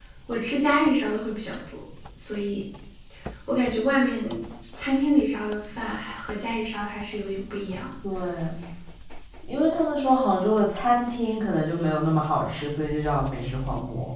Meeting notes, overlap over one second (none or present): none